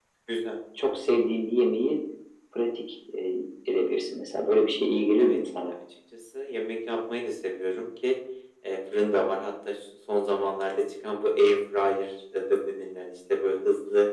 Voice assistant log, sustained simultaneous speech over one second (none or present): none